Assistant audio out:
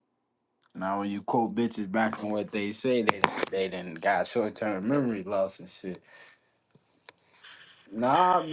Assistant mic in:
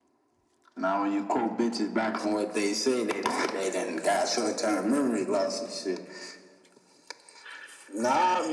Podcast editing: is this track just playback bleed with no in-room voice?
Yes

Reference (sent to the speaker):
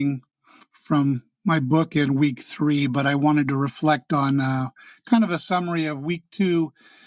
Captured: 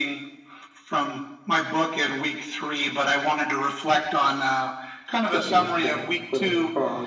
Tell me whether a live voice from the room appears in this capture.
Yes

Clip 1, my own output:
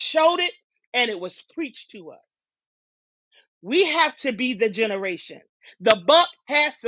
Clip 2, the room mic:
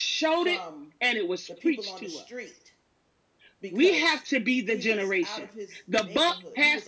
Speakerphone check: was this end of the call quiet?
No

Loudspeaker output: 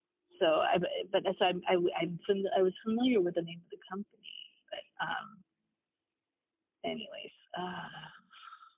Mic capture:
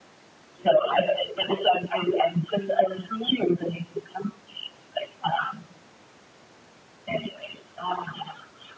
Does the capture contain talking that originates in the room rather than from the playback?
No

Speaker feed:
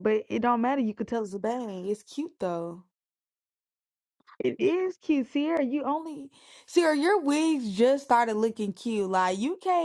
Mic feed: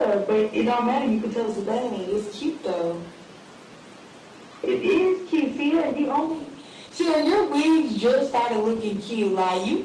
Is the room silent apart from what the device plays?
Yes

